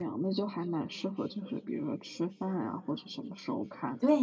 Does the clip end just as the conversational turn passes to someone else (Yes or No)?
Yes